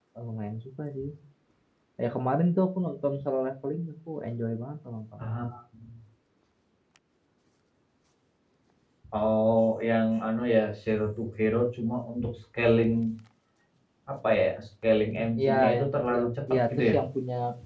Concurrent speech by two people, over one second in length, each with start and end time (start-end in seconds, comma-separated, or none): 15.1-17.0